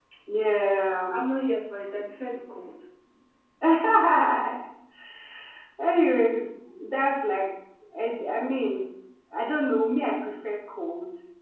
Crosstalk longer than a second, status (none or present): none